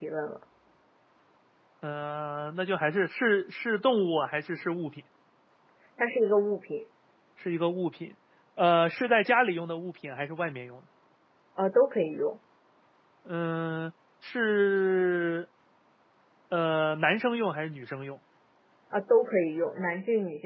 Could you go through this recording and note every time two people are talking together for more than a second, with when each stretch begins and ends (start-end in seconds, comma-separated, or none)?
none